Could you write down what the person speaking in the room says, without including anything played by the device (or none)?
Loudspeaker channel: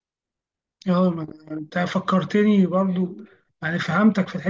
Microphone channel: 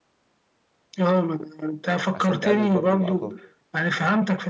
عشان تقلل برضو الاعطال